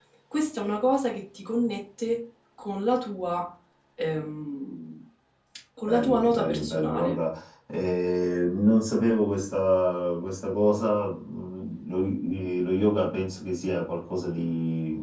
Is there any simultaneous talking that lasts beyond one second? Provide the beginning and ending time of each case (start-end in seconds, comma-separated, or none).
5.9-7.2